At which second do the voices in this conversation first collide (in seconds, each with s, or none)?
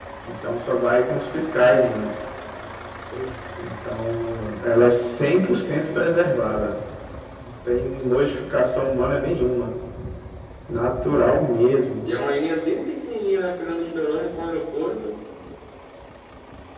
none